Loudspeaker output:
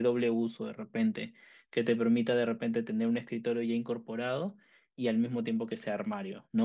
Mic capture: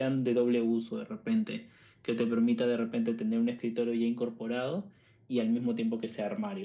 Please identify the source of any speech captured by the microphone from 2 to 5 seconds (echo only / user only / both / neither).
echo only